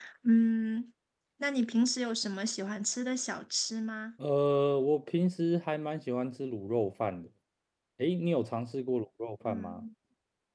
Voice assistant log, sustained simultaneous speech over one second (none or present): none